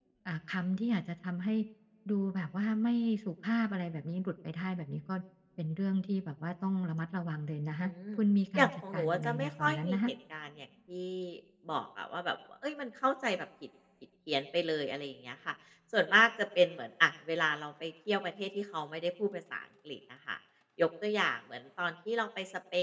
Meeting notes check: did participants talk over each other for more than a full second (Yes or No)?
Yes